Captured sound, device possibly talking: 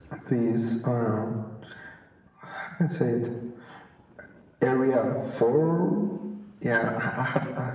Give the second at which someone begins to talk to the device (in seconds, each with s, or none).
none